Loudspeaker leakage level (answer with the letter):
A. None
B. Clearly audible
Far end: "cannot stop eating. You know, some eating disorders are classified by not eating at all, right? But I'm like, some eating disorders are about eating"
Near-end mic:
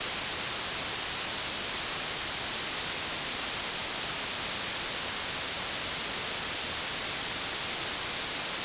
A